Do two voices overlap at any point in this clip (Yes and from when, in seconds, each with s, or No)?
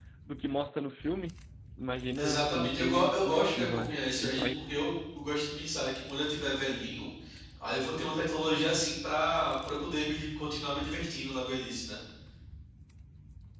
Yes, from 2.2 s